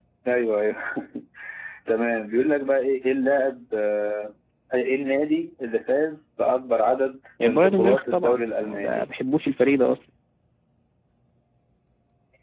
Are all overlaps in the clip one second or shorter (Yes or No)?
No